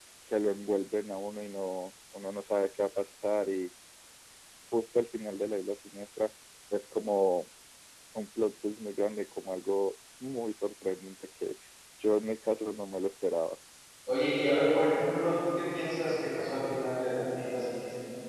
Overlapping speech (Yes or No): No